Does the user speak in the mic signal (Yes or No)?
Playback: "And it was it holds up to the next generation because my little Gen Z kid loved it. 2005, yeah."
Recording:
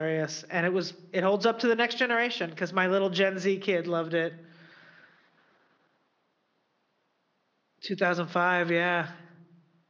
No